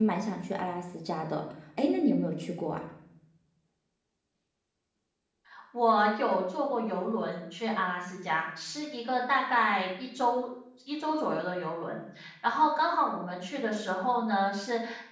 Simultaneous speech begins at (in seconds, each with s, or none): none